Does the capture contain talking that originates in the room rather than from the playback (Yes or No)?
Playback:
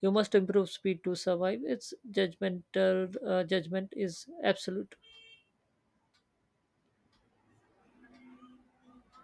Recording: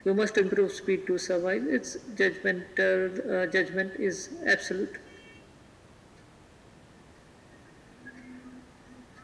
No